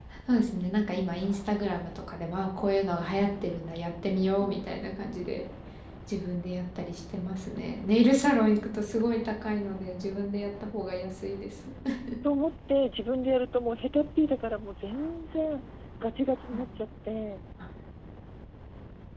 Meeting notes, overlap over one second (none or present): none